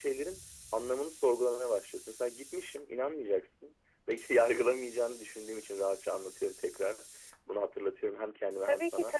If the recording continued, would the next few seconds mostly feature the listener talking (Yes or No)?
Yes